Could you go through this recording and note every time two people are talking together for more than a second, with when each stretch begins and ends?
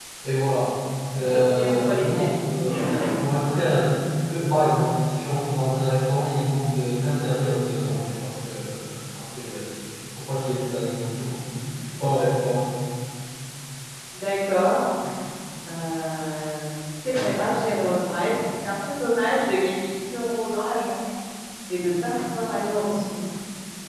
1.1-2.4

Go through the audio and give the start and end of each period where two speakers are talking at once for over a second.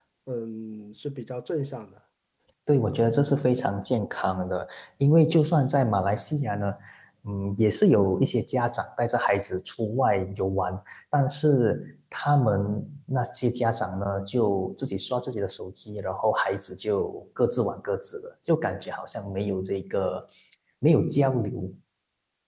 none

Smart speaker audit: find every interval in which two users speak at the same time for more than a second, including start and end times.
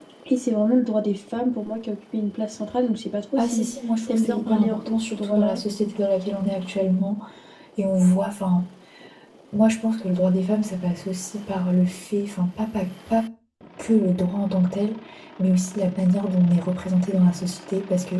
4.1-5.6

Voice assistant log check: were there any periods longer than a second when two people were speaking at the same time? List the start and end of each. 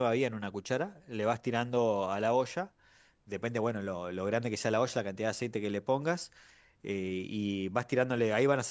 none

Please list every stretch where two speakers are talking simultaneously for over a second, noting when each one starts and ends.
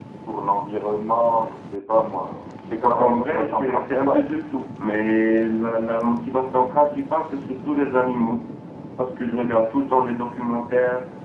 2.8-4.2

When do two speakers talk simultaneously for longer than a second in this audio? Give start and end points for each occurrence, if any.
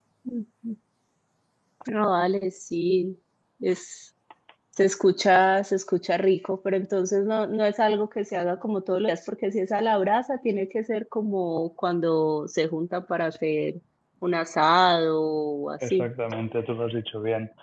none

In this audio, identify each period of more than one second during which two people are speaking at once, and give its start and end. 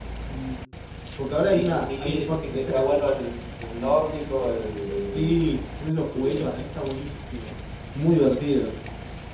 1.5-2.7

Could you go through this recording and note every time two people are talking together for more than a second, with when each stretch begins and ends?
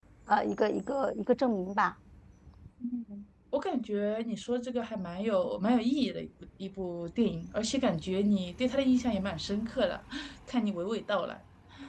none

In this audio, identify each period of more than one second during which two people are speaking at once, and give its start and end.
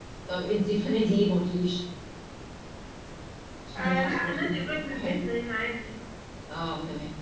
3.8-5.2

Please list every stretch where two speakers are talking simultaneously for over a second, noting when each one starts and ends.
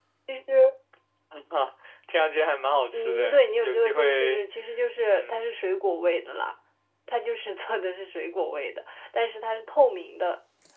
2.9-4.4

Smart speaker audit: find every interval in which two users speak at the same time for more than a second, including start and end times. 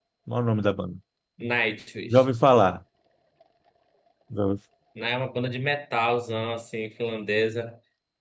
none

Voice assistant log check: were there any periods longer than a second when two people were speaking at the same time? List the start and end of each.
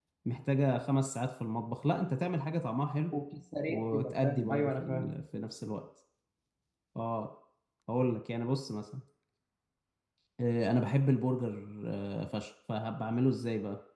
3.7-5.1

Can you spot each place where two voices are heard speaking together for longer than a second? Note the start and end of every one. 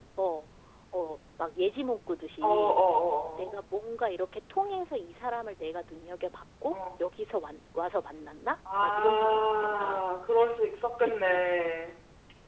8.8-10.0

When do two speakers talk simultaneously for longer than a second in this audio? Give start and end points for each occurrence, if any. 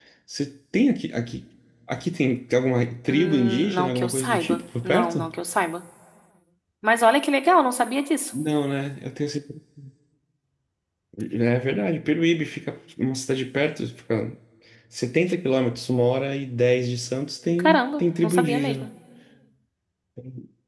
3.1-5.3, 17.6-18.9

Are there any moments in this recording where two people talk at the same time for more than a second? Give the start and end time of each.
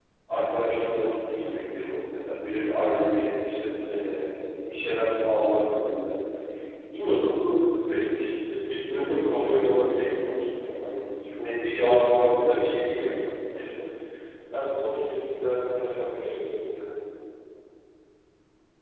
8.7-10.1, 11.4-13.1

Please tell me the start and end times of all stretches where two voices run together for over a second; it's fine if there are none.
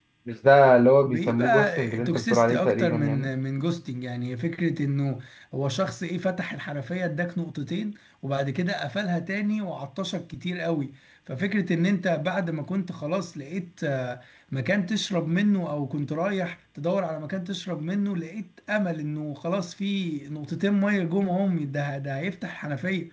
1.1-3.3

